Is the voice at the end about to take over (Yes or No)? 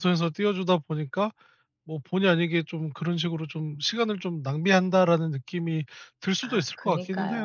Yes